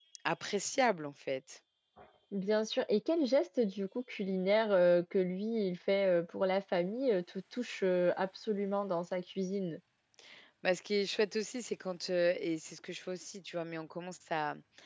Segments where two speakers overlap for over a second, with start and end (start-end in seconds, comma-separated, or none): none